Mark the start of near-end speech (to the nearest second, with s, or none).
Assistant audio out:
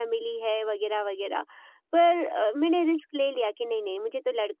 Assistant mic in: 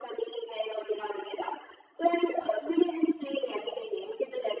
none